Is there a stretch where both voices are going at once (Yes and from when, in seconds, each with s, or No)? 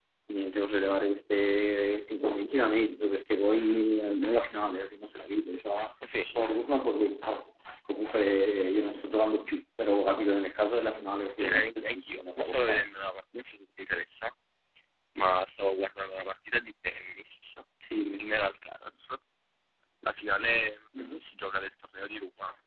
Yes, from 11.4 s